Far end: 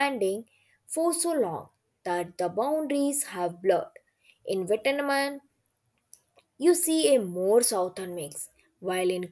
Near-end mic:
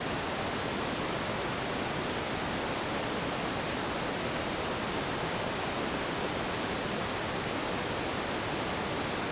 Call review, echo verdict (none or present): none